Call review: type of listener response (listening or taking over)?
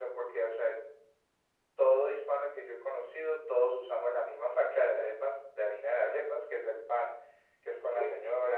listening